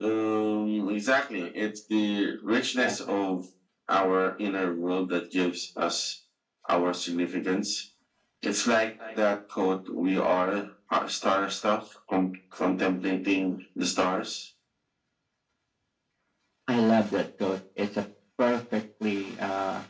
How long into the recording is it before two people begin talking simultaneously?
none

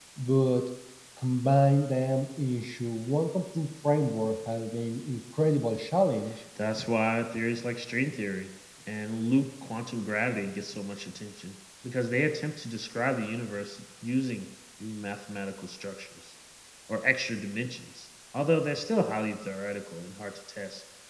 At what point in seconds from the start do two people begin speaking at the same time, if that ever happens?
none

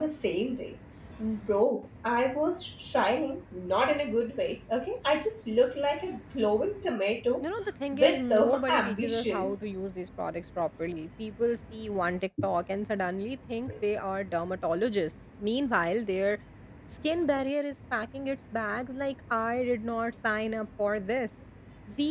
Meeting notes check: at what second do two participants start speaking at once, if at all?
7.9 s

